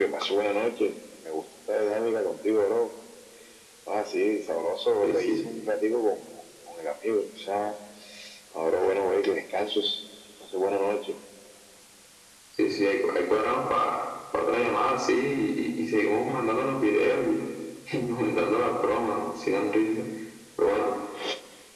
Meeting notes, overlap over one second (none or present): none